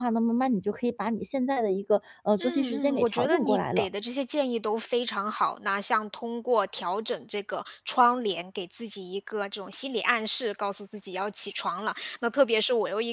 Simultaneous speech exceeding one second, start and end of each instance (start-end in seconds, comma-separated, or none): 2.4-3.9